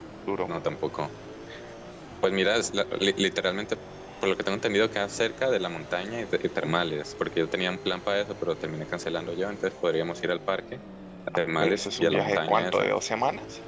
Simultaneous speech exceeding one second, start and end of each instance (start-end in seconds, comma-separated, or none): 11.6-12.9